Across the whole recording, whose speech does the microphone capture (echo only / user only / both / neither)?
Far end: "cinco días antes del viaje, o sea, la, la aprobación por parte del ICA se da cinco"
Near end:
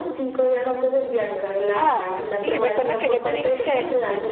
both